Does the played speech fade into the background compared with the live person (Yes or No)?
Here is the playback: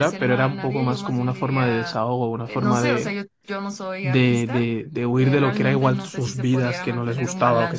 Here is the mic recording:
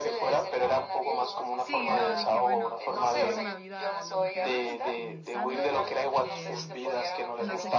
No